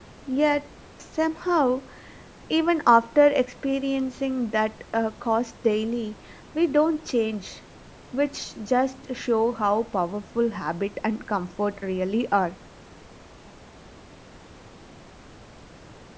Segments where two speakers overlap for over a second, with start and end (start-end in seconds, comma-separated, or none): none